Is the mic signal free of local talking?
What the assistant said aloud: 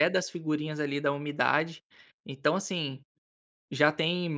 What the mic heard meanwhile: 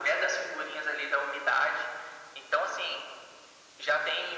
Yes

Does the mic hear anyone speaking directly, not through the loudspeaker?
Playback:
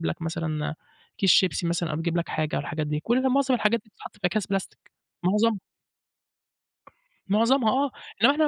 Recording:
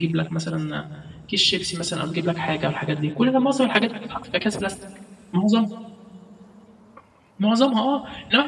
No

